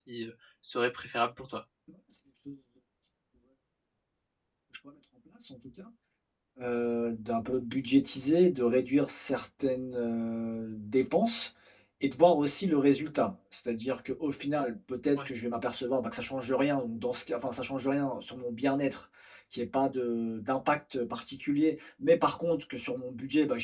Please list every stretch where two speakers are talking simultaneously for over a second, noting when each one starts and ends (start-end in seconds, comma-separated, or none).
none